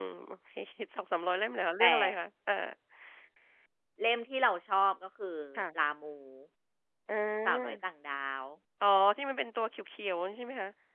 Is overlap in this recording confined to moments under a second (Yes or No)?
Yes